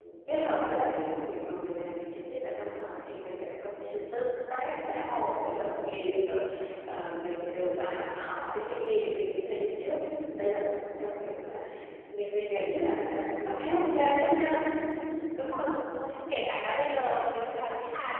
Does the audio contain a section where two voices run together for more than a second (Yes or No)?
No